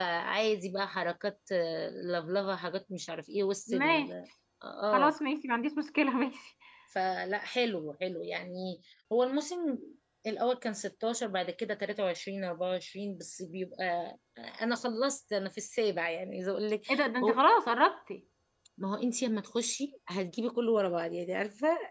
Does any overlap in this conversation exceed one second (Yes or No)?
No